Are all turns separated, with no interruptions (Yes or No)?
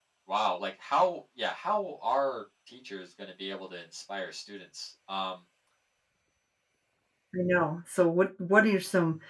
Yes